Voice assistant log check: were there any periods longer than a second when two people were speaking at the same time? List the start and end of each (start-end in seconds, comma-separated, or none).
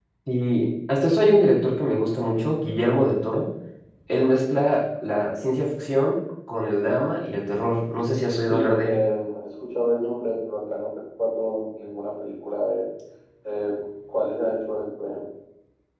none